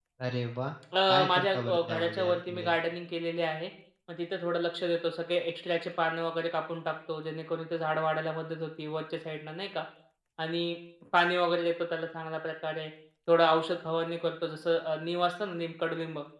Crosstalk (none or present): present